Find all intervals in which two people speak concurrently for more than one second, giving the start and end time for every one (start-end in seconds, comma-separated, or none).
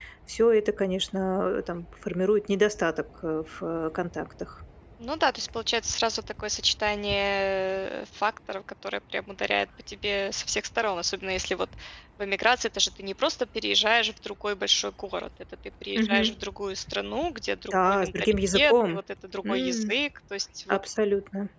17.7-19.0